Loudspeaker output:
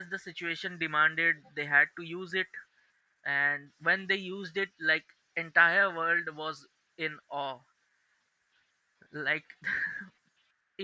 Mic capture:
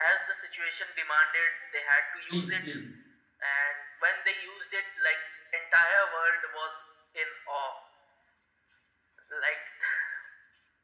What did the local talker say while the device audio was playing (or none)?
please please